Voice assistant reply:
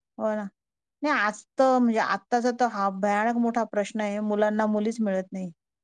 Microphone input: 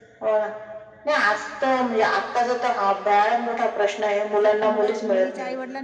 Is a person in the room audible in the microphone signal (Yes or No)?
Yes